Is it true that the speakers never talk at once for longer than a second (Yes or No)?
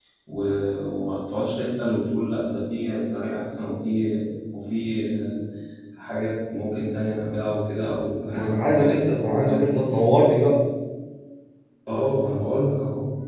No